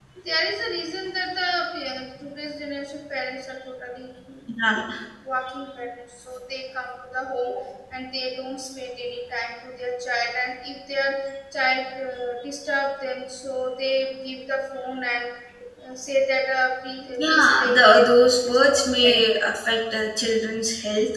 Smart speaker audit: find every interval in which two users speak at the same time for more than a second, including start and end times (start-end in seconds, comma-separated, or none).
17.3-19.5